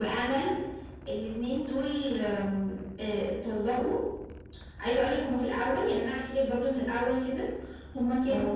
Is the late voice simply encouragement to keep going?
Yes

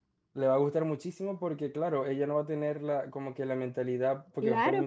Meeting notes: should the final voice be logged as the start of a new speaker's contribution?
Yes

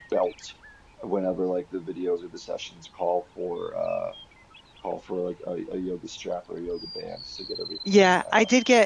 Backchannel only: No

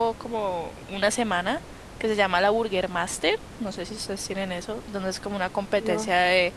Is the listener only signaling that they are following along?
Yes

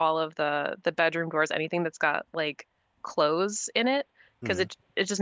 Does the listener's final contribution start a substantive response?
No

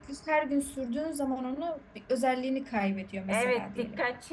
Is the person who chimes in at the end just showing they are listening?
No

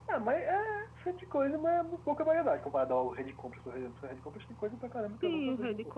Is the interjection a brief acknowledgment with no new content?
No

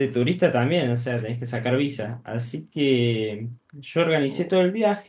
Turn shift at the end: No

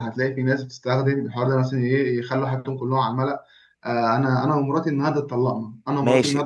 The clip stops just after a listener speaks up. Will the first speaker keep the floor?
No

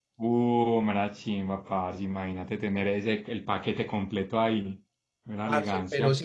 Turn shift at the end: Yes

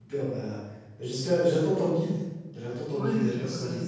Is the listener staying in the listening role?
No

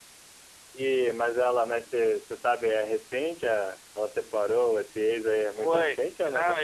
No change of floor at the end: No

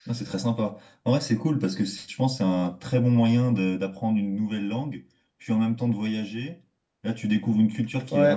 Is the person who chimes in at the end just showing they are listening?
No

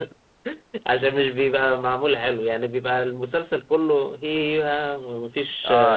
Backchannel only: No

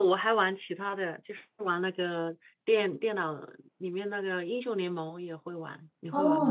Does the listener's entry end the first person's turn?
Yes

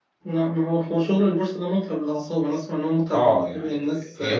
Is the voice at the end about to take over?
Yes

